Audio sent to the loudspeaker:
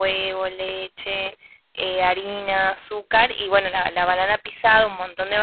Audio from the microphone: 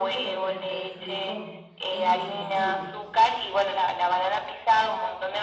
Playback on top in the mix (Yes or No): Yes